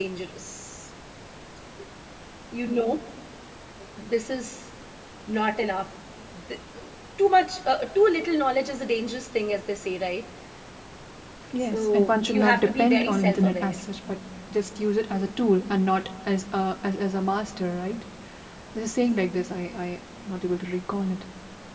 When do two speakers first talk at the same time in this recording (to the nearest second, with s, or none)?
12 s